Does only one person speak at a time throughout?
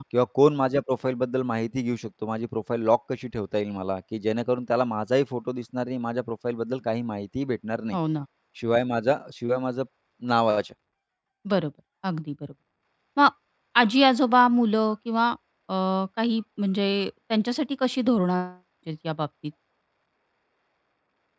Yes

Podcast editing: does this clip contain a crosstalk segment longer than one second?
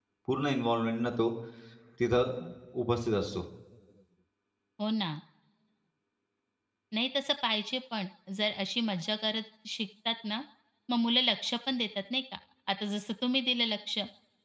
No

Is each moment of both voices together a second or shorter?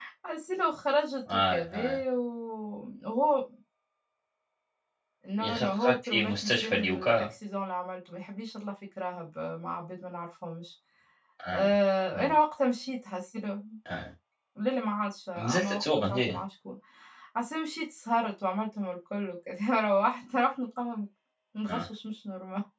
No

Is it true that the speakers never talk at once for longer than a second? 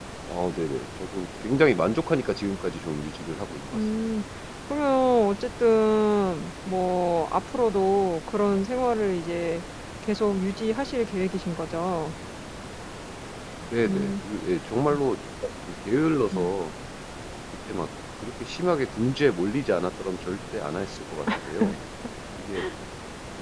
Yes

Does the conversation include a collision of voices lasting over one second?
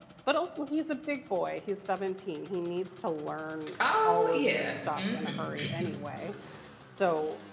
Yes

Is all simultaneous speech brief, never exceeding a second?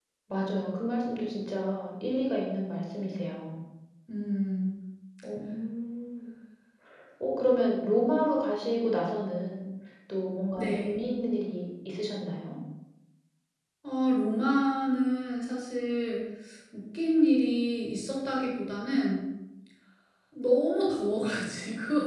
Yes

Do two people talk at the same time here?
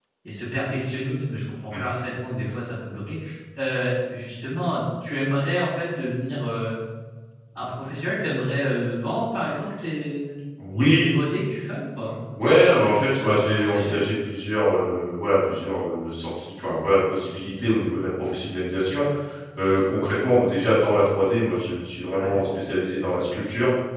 Yes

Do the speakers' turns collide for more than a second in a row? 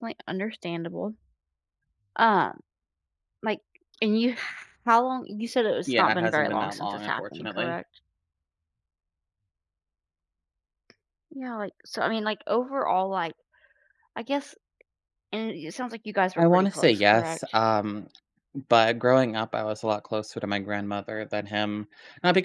Yes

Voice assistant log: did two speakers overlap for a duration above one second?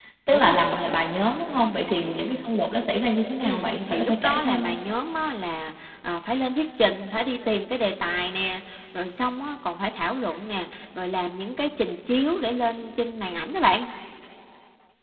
Yes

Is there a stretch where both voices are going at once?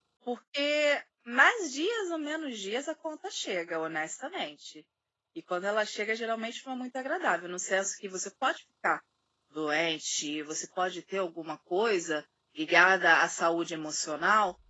No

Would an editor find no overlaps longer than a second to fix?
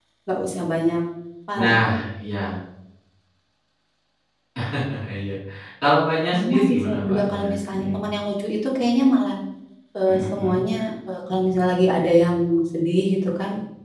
No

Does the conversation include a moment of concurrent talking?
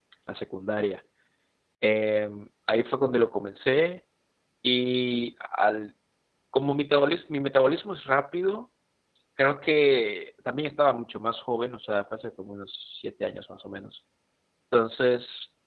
No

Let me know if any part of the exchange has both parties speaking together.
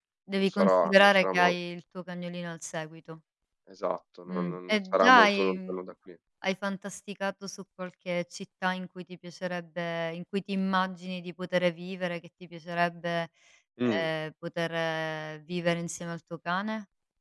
Yes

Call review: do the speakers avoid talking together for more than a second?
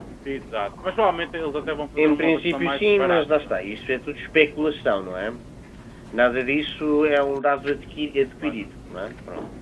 No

